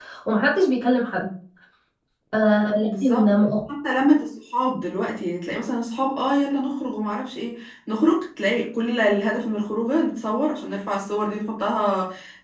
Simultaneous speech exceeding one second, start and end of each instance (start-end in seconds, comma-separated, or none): none